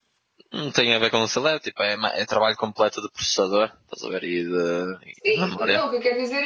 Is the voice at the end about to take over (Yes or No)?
Yes